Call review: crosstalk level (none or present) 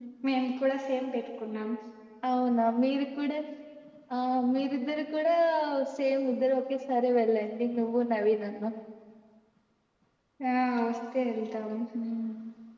none